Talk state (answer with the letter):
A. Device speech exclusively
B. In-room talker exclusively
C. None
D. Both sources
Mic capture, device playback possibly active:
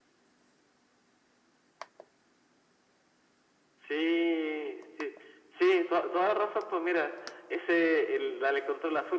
A